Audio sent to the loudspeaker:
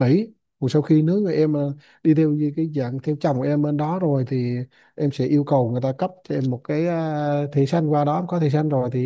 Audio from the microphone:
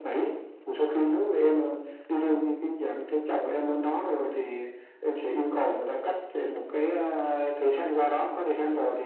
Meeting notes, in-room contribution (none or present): none